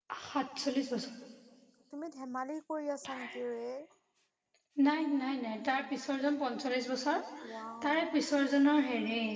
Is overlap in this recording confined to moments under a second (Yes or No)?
Yes